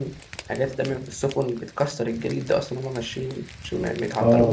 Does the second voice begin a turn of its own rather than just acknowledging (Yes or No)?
Yes